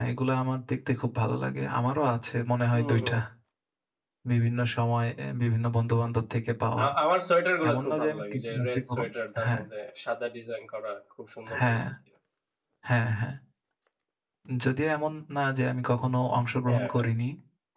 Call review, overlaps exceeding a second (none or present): present